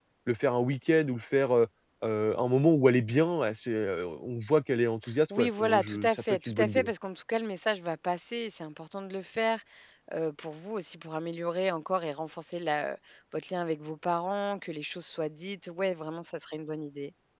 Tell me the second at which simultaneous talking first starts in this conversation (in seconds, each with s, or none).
5.3 s